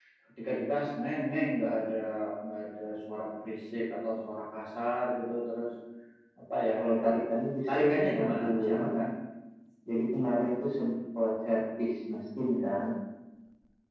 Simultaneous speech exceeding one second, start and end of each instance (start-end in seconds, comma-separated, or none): 7.7-9.1